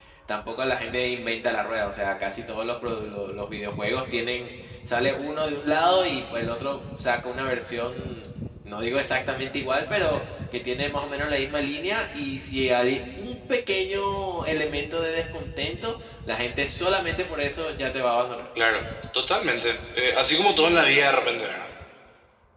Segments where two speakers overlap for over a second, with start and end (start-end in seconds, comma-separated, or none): none